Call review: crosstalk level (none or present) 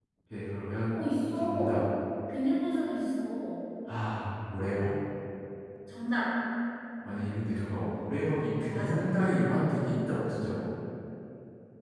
present